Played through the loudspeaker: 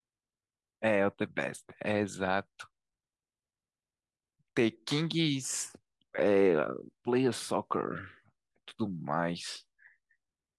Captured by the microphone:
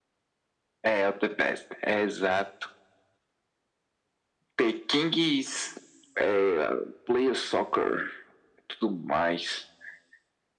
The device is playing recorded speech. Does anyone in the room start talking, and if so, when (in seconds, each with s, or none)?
none